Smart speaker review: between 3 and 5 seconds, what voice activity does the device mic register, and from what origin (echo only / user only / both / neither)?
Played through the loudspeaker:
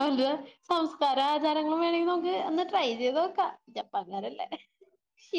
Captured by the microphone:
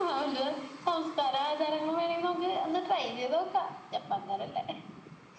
echo only